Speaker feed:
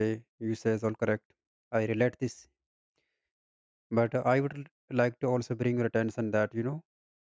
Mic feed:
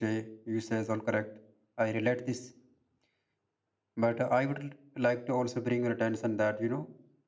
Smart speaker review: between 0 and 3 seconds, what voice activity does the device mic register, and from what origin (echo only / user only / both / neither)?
echo only